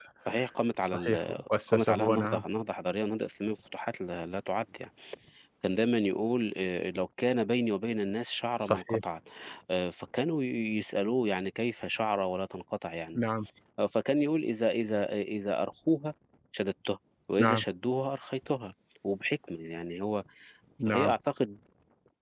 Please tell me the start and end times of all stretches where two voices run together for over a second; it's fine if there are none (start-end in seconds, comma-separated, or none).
0.8-2.4